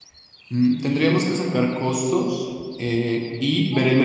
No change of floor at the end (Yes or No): Yes